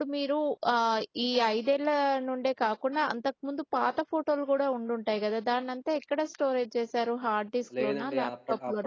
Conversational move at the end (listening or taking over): taking over